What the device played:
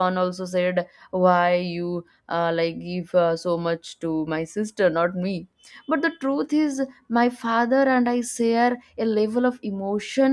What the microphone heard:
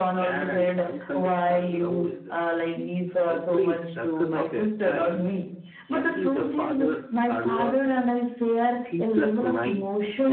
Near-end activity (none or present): present